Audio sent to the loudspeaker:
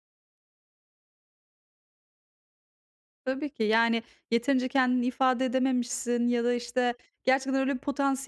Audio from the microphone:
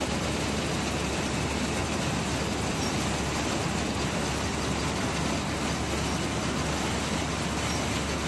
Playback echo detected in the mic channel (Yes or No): No